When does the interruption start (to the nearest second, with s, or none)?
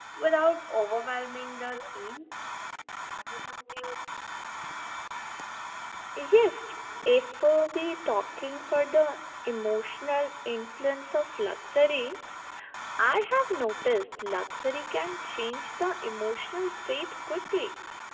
none